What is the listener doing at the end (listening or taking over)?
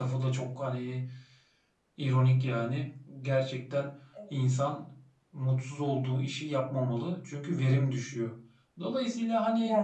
listening